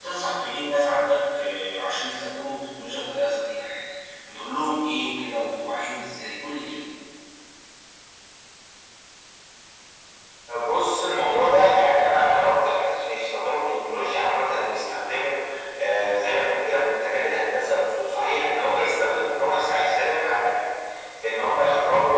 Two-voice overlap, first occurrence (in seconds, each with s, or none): none